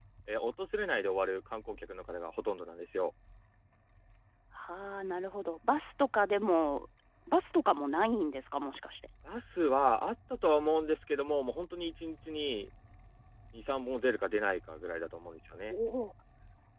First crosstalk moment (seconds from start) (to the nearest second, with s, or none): none